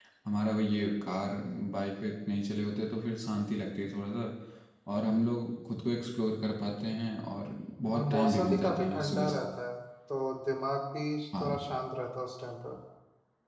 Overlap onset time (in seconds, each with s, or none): 7.9 s